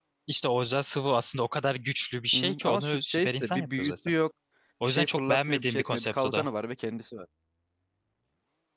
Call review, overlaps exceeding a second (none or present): present